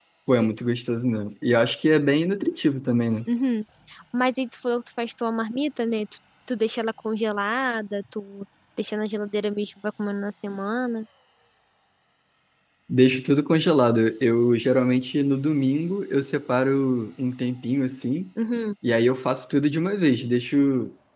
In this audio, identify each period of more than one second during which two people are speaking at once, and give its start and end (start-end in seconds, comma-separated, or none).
none